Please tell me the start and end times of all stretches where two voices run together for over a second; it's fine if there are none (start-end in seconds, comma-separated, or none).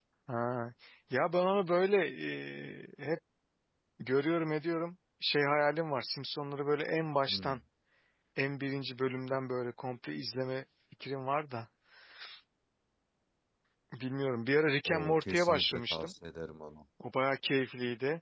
14.8-16.1